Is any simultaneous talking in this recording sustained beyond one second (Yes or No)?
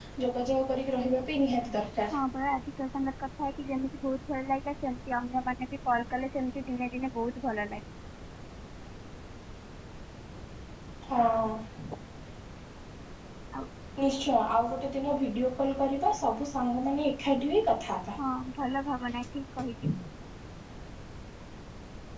No